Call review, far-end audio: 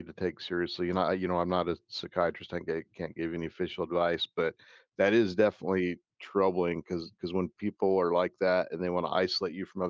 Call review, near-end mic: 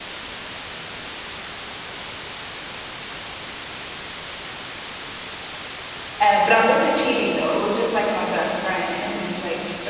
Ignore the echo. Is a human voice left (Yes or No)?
Yes